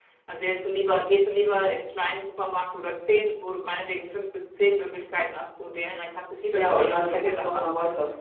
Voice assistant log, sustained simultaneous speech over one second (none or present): present